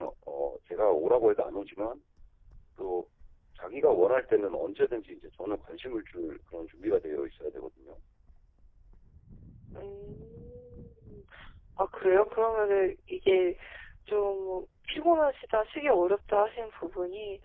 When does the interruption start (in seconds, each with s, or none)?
none